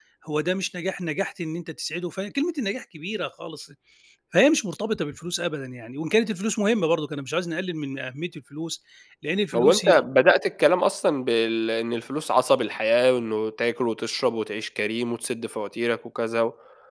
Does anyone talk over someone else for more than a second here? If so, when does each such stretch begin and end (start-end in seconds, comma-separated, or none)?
none